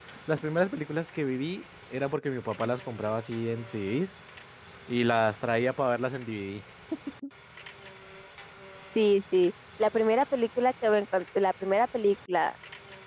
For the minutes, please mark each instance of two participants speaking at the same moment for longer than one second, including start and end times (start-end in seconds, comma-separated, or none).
none